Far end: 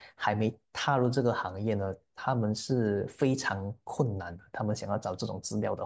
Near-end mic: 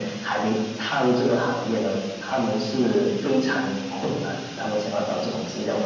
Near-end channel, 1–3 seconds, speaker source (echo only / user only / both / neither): echo only